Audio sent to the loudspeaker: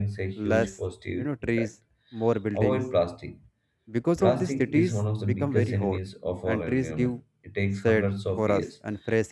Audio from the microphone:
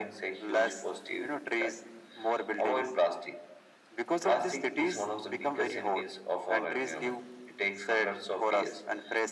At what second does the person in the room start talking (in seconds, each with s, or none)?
none